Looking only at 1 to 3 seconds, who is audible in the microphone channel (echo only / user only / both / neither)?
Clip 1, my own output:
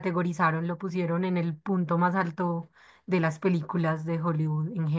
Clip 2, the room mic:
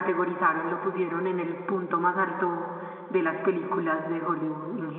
echo only